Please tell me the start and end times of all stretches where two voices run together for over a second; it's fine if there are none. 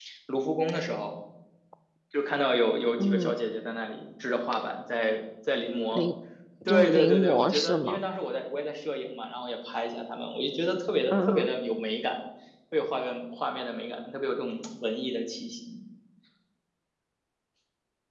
6.7-8.0

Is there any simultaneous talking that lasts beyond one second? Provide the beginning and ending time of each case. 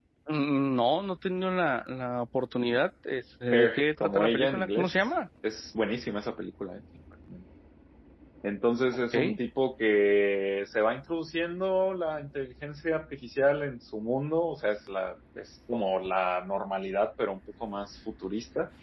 3.5-5.1

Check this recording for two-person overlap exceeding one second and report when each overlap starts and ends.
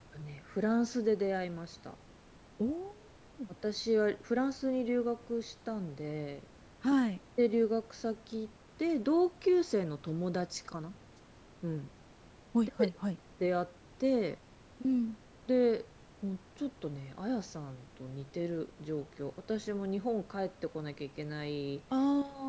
none

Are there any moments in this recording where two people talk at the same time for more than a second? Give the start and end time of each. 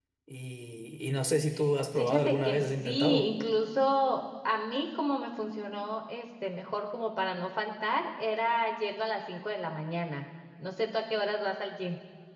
1.9-3.3

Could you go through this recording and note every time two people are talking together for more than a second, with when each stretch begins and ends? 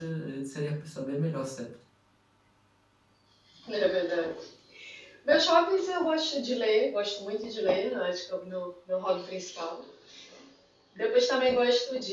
none

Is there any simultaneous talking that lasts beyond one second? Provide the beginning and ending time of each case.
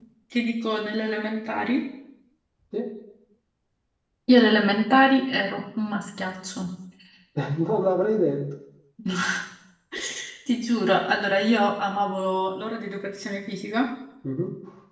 none

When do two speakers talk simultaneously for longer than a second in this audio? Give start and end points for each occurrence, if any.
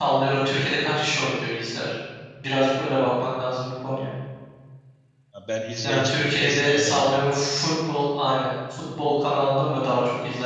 5.8-7.5

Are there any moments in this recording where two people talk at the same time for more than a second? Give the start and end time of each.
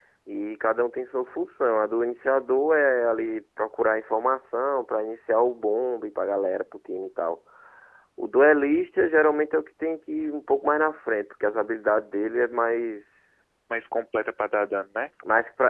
none

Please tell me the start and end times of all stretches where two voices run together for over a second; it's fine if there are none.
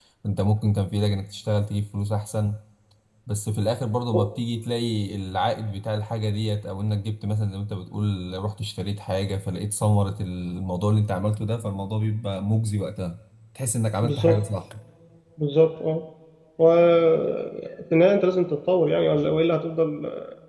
none

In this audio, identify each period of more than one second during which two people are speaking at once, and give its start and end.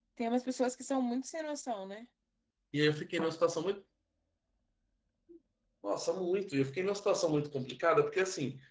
none

